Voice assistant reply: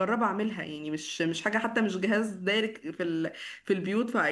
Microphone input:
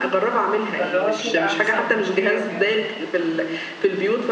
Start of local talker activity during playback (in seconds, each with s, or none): 0.8 s